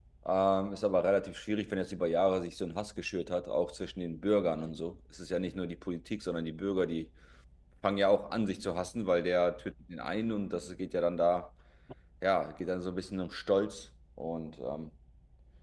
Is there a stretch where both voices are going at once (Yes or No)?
No